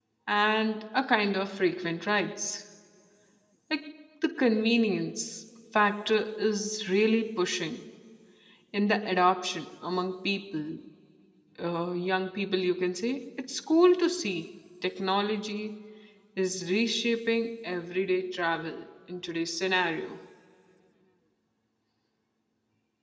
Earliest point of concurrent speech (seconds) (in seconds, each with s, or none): none